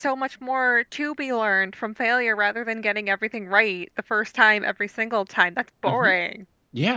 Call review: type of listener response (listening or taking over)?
taking over